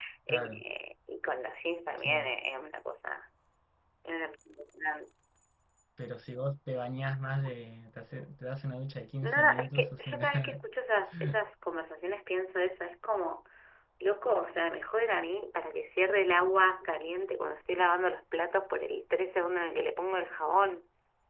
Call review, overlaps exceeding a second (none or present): present